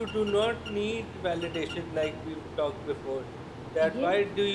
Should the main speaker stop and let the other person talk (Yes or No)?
No